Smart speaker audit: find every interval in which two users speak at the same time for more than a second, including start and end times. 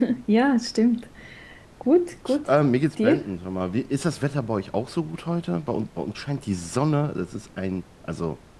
none

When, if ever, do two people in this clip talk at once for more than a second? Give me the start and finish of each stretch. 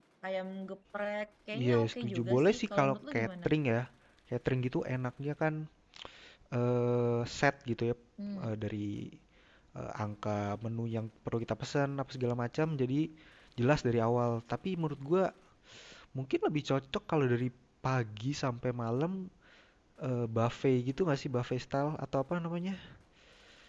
1.6-3.5

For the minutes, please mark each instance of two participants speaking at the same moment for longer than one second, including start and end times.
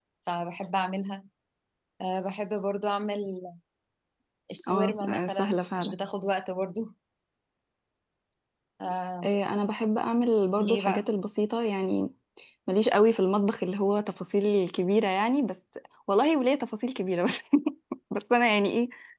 4.7-6.0

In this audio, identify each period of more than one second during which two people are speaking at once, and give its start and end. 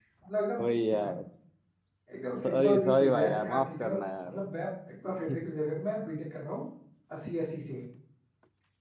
2.4-3.9

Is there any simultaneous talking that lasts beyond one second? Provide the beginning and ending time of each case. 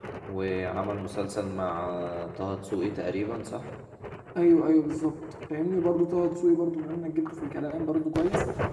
none

